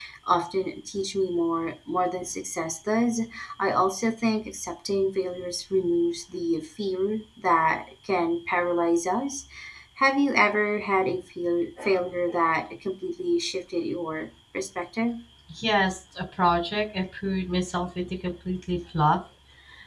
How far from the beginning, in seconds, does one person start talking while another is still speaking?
none

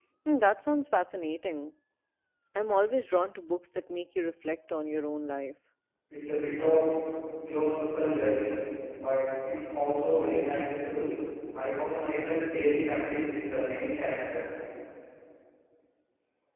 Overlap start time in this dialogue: none

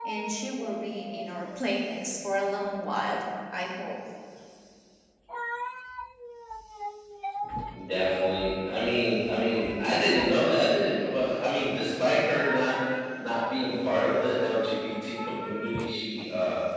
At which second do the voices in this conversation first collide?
none

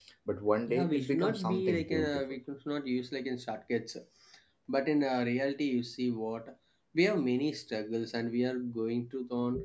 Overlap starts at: 0.7 s

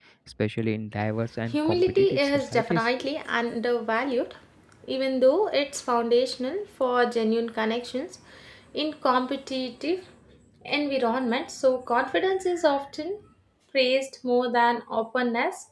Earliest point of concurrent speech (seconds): 1.5 s

